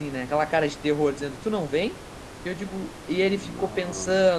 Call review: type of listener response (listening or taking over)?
listening